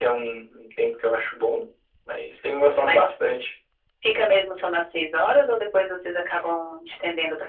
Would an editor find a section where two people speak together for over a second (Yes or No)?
No